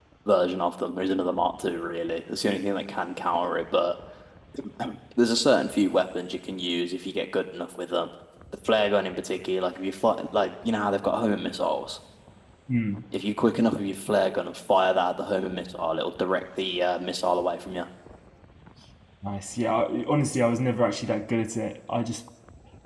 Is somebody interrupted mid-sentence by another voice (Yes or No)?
No